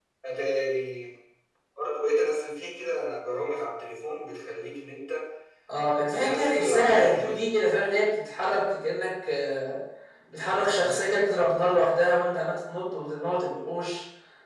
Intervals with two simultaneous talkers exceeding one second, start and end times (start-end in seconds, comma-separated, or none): 6.2-7.4